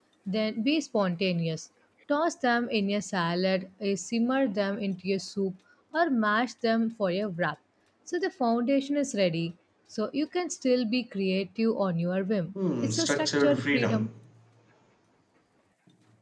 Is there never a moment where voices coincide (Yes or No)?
No